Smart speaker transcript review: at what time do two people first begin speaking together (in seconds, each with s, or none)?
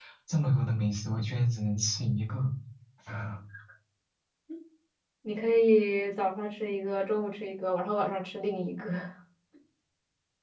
none